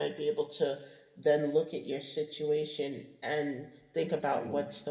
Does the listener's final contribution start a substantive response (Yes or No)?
No